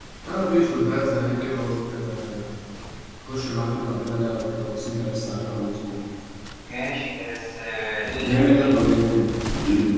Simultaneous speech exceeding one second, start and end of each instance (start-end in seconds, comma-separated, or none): none